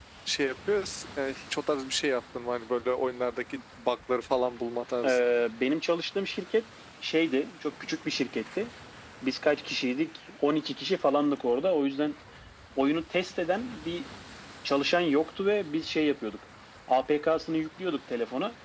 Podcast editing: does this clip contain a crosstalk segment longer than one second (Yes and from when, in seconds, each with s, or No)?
No